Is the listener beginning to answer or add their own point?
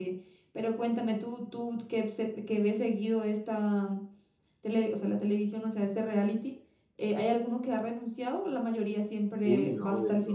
Yes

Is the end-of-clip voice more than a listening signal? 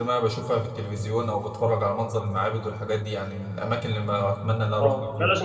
Yes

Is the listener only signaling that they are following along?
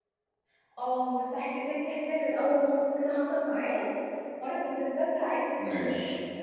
Yes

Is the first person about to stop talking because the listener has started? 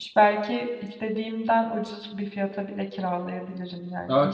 Yes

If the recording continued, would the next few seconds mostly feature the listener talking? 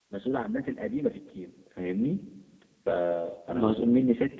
No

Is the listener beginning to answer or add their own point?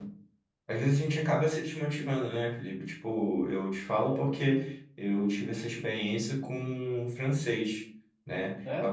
No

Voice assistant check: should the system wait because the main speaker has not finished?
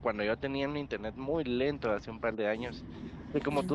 Yes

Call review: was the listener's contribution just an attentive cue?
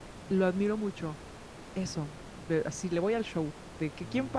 Yes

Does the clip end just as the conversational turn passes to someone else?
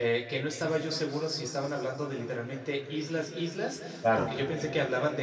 No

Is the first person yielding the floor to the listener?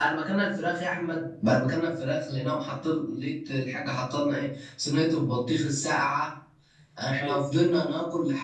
No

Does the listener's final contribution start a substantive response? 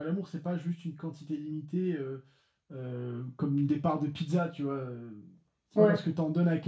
No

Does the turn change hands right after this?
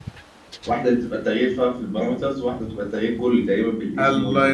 Yes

